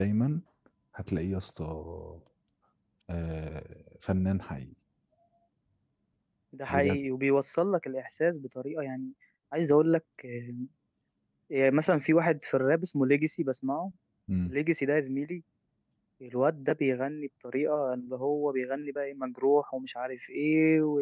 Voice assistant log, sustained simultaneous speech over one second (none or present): none